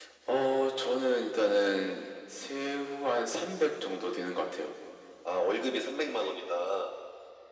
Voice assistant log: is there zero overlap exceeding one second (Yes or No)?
Yes